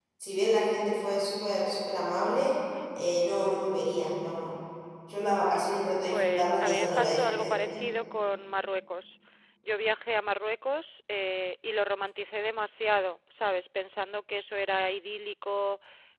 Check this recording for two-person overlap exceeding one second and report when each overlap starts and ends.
6.1-7.5

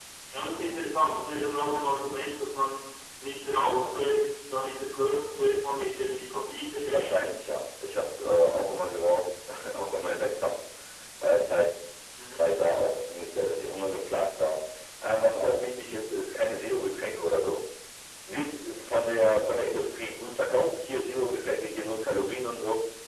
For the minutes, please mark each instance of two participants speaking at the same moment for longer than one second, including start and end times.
none

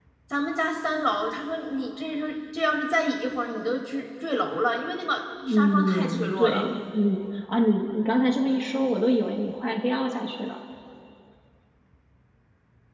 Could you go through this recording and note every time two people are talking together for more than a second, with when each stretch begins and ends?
5.5-6.7

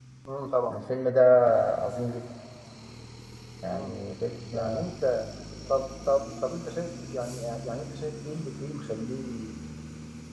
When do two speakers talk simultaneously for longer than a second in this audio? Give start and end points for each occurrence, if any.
none

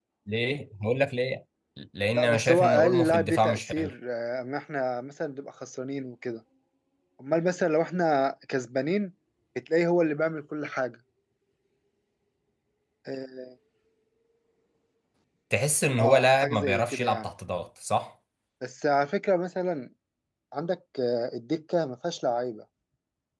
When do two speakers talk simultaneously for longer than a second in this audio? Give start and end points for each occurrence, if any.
2.1-3.9, 16.0-17.3

